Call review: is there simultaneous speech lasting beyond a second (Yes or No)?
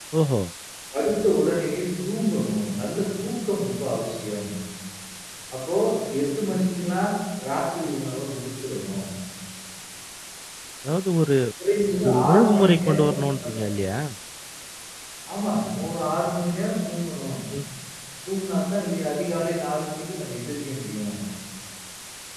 Yes